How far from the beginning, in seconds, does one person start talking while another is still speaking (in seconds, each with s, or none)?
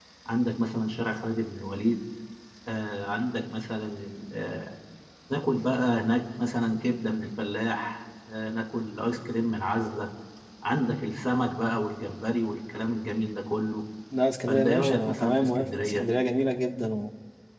14.5 s